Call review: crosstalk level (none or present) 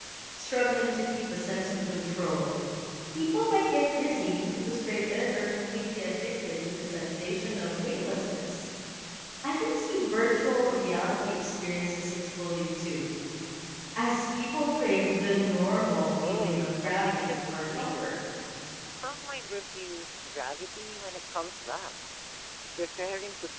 present